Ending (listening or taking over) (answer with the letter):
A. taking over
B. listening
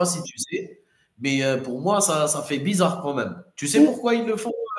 B